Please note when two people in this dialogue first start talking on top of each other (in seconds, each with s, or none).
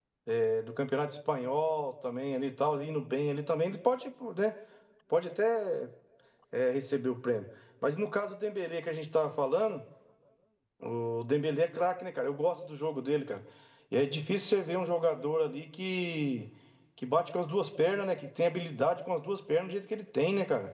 none